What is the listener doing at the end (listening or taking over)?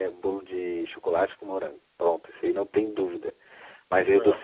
listening